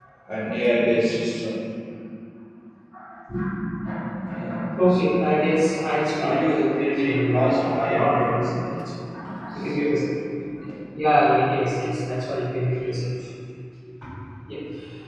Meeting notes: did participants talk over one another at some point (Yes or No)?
Yes